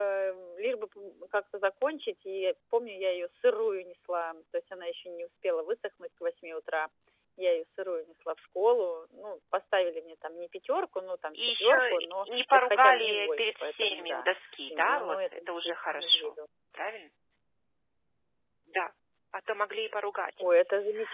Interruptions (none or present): present